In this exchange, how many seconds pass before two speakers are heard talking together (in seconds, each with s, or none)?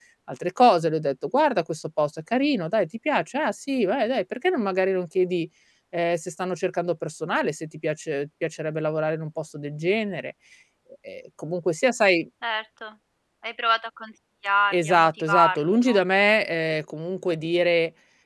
14.7 s